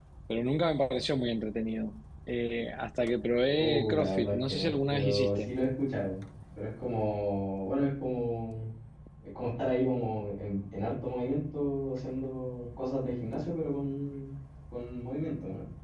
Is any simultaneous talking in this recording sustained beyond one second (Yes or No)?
Yes